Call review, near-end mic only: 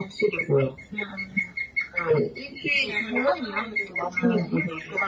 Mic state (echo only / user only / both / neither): echo only